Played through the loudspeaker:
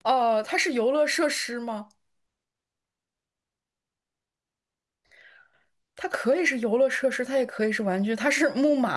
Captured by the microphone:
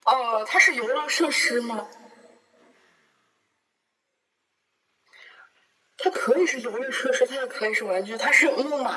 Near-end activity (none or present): none